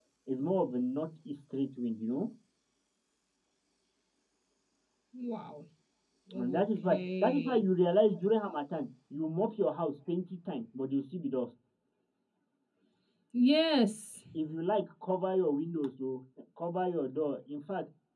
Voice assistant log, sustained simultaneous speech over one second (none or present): present